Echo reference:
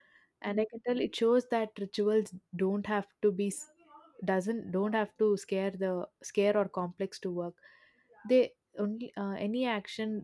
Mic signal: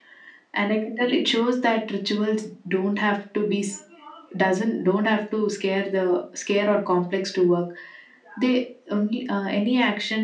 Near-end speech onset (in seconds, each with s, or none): none